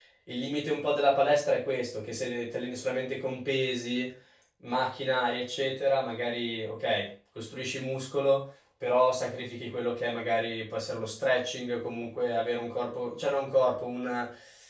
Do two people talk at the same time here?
No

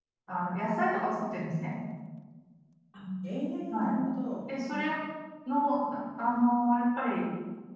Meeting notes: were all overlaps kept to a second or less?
Yes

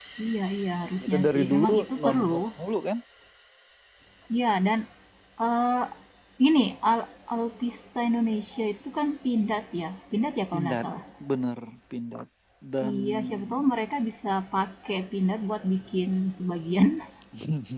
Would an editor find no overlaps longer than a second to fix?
No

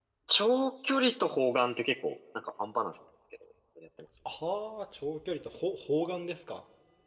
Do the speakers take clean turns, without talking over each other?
Yes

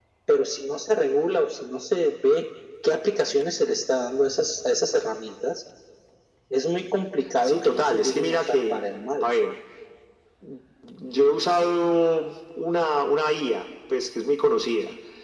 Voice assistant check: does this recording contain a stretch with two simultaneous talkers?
Yes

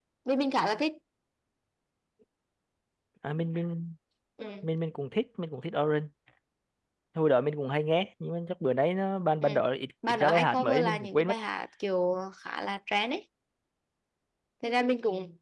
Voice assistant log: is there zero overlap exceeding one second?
No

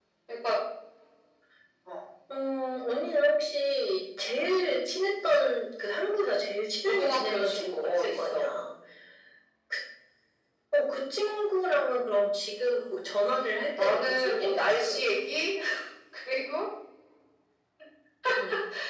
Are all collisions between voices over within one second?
No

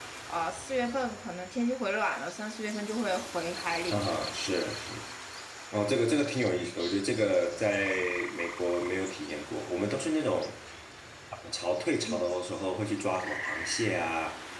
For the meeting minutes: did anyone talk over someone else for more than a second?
No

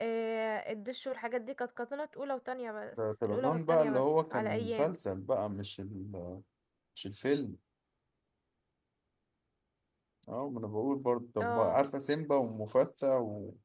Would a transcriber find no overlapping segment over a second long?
No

